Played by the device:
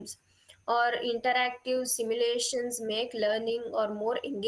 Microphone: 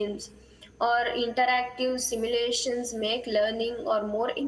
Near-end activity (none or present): none